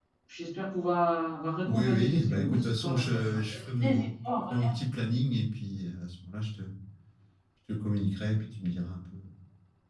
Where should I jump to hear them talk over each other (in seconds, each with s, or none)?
1.7 s